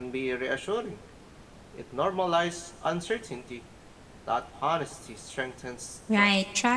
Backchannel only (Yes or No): No